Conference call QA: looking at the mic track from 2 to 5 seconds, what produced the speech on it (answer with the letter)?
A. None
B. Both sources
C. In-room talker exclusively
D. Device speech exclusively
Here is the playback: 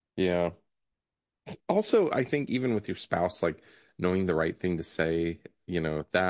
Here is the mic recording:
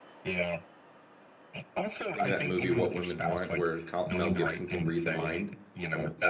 B